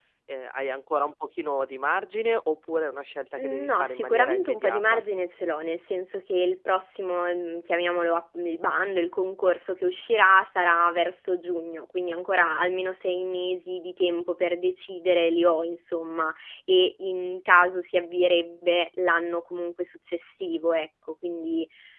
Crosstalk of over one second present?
Yes, from 3.4 s

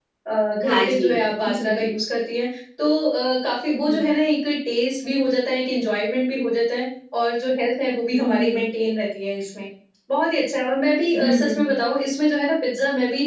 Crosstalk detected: Yes, from 0.6 s

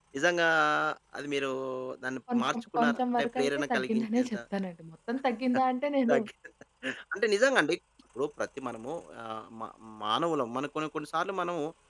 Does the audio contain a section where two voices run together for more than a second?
Yes, from 2.3 s

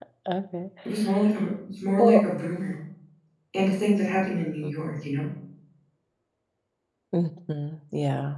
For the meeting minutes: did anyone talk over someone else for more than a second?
No

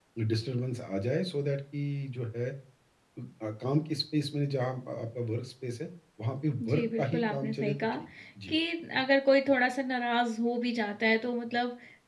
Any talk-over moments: Yes, from 6.6 s

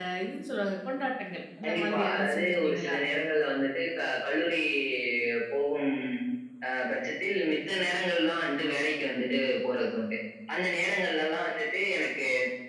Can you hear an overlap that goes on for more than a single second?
Yes, from 1.6 s

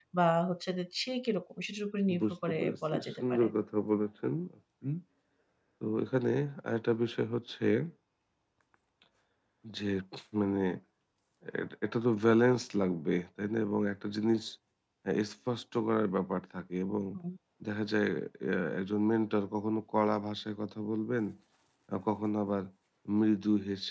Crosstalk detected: Yes, from 2.1 s

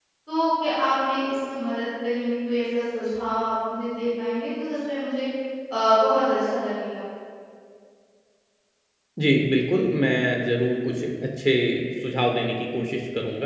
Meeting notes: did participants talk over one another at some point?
No

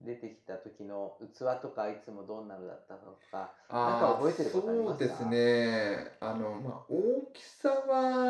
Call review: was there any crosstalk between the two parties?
Yes, from 3.7 s

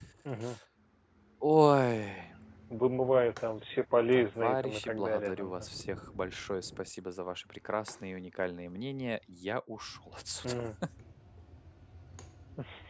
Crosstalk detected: Yes, from 4.1 s

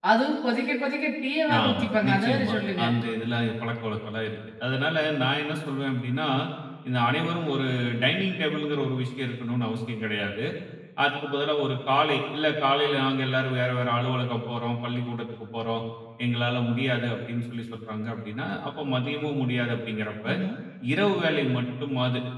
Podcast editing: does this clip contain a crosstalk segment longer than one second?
Yes, from 1.5 s

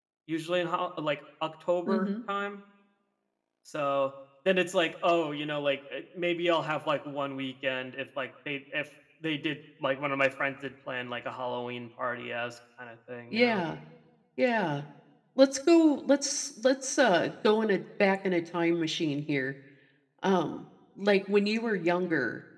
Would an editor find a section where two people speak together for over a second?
No

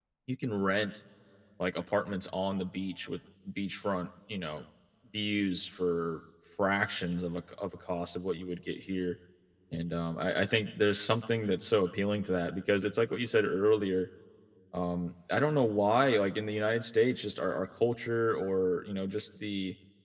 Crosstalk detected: No

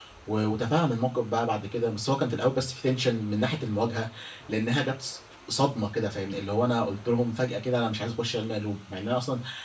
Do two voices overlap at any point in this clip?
No

